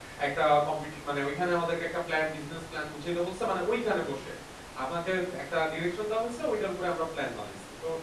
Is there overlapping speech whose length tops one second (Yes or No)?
No